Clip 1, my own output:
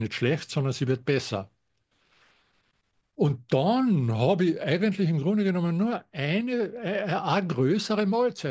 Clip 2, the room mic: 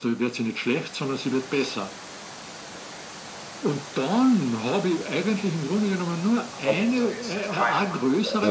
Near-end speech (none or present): present